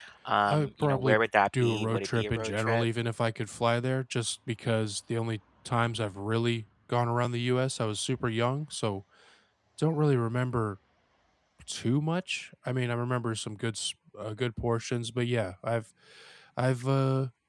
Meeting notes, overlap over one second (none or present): present